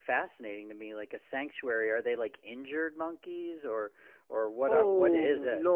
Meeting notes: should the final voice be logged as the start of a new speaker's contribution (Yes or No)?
Yes